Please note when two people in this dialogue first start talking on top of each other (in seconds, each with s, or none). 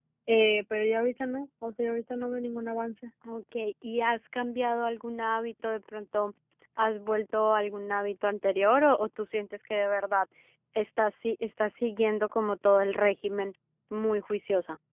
none